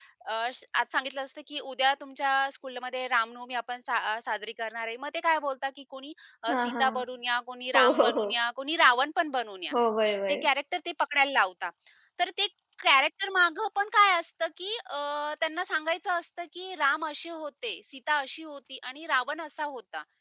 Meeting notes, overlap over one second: none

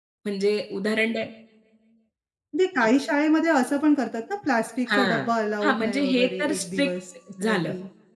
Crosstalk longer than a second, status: present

